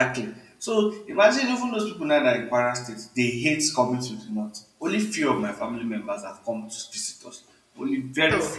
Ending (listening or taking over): listening